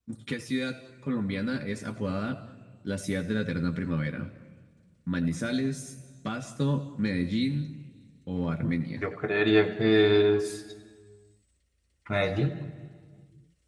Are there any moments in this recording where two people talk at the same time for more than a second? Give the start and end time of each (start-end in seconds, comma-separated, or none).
none